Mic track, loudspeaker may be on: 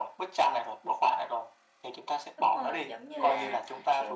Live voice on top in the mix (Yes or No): No